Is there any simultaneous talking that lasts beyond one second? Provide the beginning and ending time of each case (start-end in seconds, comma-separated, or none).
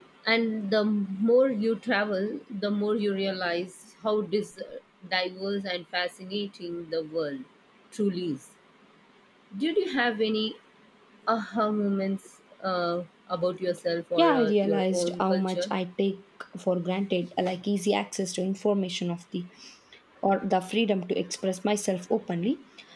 14.2-15.7